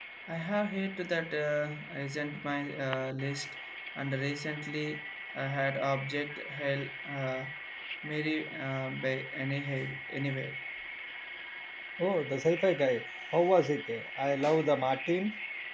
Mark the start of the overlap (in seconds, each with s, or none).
none